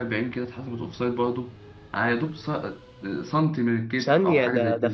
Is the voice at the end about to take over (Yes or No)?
Yes